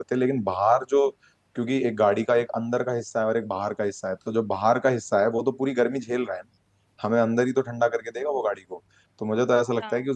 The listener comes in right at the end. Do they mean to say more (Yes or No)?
No